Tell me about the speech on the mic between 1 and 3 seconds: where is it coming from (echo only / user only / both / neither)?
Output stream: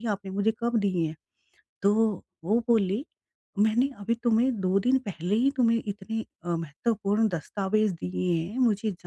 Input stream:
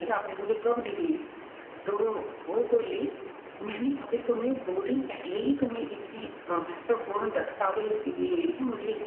echo only